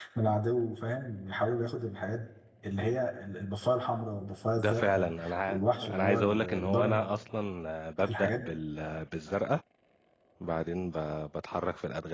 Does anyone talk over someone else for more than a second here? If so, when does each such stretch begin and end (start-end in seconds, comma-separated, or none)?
4.6-7.1